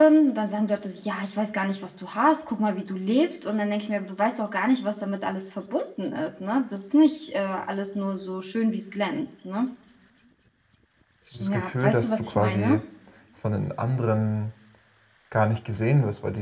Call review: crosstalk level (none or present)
present